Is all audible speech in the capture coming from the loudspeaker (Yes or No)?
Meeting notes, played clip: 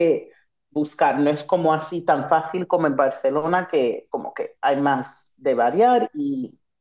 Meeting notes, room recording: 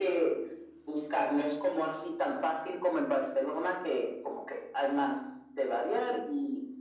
Yes